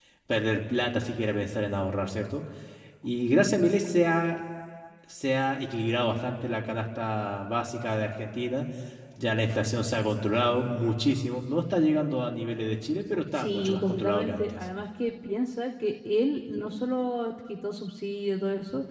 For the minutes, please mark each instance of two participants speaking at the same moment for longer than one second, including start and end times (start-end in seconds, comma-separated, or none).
13.3-14.6